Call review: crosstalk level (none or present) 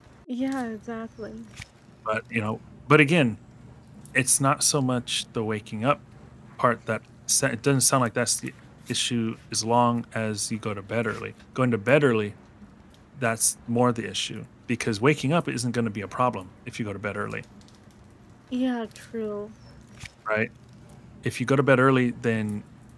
none